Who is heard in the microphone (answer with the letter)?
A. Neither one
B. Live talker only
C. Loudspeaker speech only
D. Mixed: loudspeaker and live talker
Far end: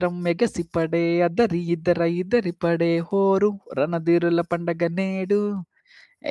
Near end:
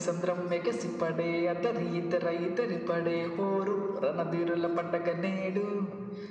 C